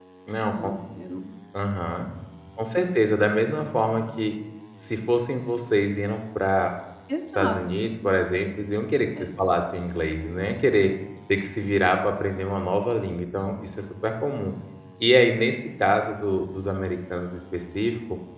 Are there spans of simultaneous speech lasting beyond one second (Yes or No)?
No